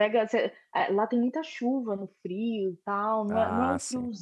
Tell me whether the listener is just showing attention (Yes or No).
Yes